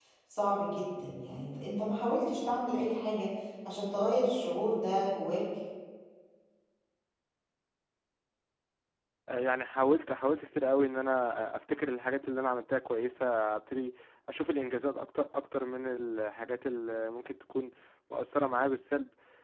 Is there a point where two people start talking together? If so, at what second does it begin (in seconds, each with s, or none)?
none